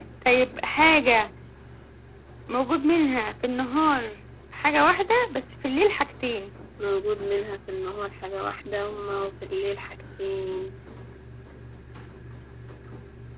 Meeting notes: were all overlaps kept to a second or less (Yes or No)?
Yes